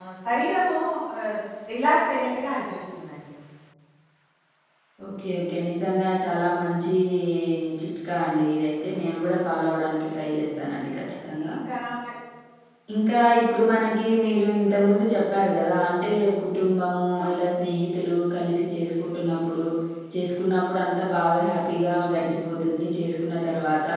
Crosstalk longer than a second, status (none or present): none